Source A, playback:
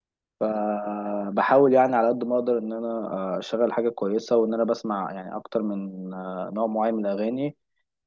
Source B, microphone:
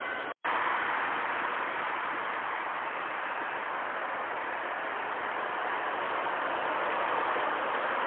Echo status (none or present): none